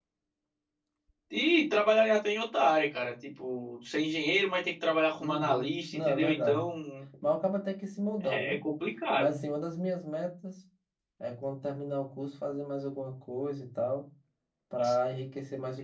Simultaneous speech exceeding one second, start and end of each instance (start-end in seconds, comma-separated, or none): 5.2-6.7